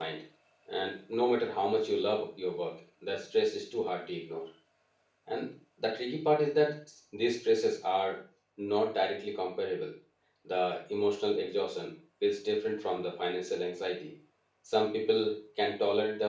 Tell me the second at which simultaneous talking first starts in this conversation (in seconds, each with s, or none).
none